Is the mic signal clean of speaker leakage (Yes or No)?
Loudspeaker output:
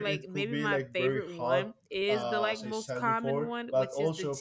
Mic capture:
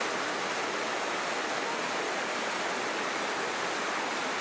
Yes